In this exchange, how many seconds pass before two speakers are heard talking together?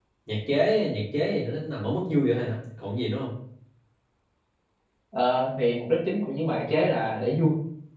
none

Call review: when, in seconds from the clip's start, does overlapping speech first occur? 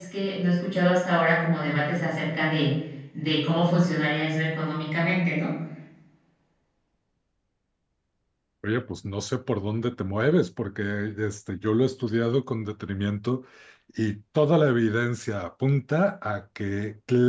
none

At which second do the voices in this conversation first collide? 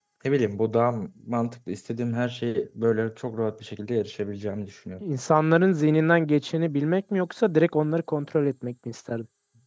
none

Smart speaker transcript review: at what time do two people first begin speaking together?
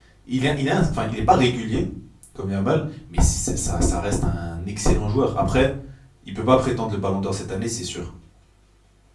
none

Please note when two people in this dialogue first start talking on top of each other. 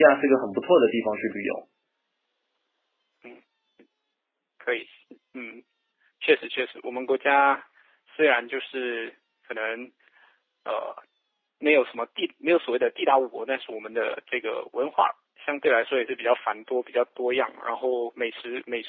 none

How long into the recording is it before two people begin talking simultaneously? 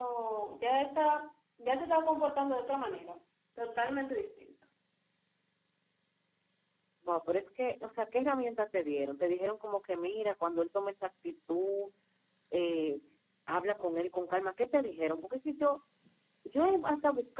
none

